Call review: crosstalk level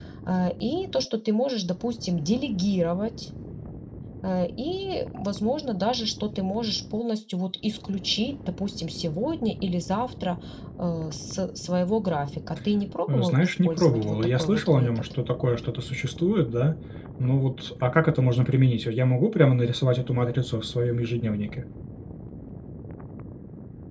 present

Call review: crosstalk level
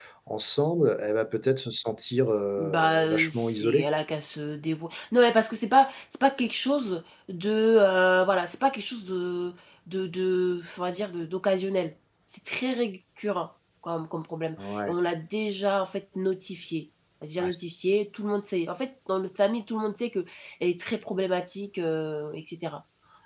present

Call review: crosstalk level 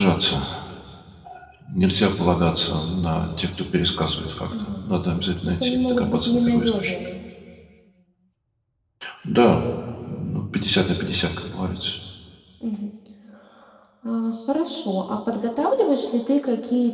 present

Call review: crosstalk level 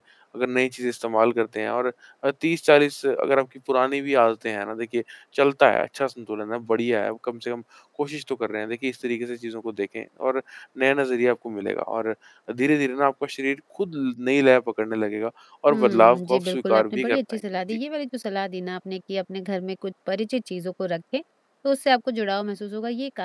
present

